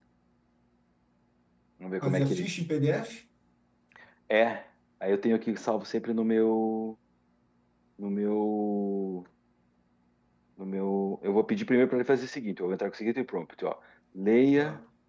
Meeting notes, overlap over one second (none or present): none